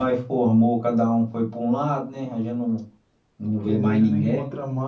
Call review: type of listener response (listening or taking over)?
taking over